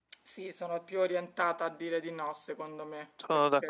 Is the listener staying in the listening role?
No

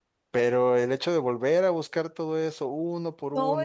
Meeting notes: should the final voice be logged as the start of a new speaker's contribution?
Yes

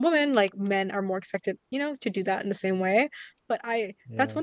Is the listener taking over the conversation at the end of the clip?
No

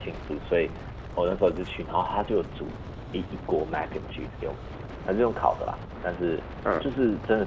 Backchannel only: Yes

